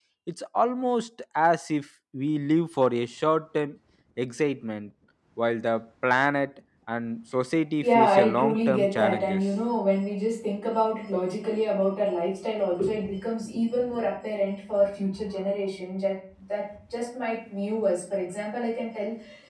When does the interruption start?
7.8 s

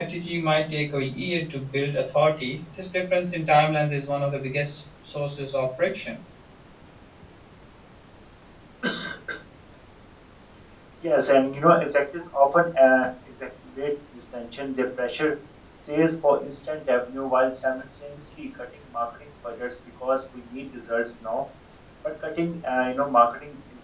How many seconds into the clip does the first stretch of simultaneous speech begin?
none

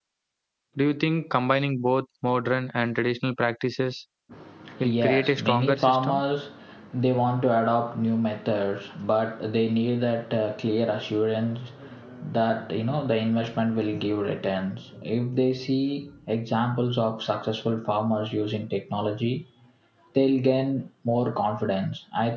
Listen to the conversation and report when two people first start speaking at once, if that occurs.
4.8 s

